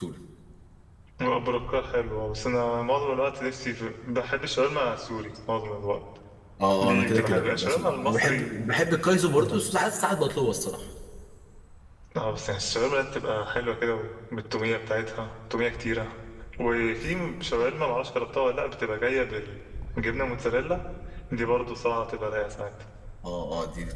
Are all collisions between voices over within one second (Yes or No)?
No